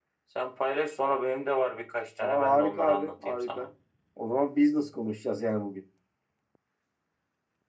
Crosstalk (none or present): present